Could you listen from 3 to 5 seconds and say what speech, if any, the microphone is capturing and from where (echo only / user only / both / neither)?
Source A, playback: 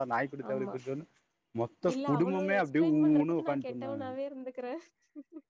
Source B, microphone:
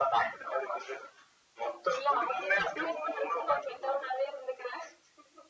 echo only